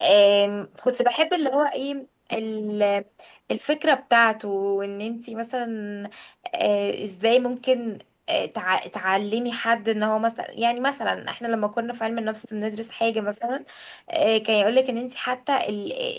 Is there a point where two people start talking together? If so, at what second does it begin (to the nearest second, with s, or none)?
none